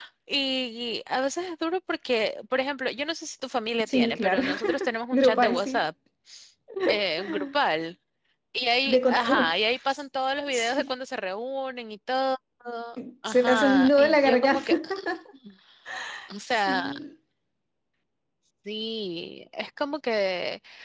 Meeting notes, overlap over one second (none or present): present